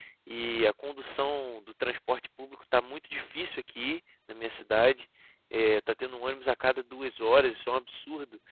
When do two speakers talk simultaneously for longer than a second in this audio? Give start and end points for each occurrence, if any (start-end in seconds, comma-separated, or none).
none